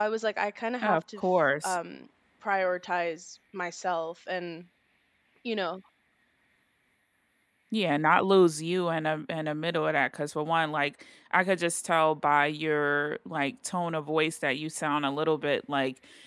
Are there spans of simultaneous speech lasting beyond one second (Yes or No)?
No